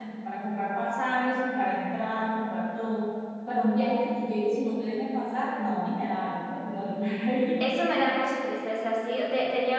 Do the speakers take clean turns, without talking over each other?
Yes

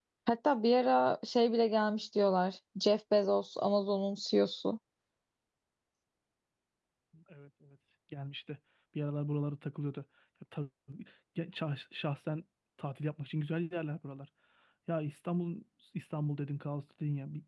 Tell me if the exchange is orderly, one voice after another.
Yes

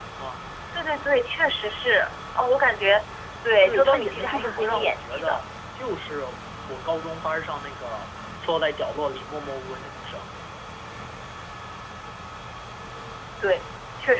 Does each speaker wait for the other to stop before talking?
No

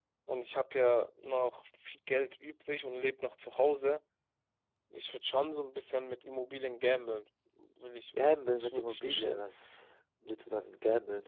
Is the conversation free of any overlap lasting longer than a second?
No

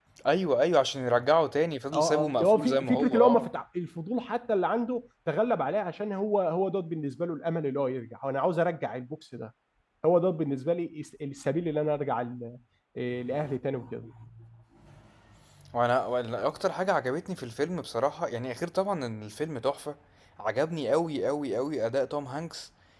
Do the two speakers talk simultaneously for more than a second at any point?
Yes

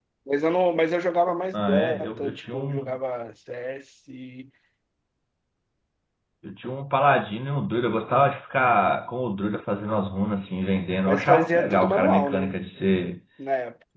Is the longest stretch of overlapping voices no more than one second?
No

